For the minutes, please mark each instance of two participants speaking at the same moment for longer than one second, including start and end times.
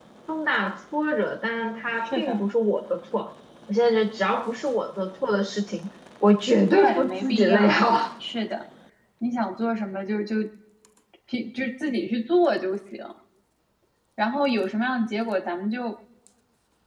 6.7-7.9

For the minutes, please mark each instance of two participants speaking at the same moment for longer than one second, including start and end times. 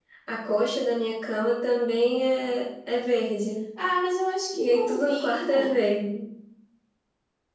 4.5-5.8

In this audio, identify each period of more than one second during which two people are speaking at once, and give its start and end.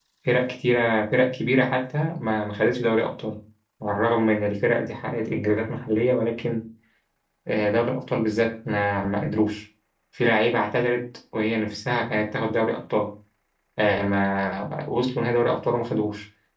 none

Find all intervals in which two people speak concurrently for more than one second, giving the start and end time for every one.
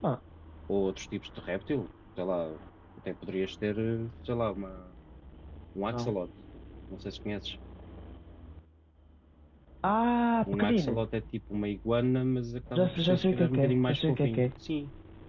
12.8-14.4

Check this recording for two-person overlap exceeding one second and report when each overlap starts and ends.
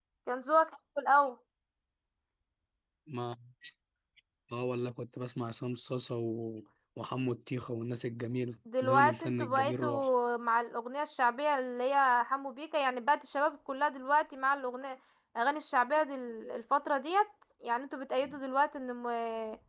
8.8-10.1

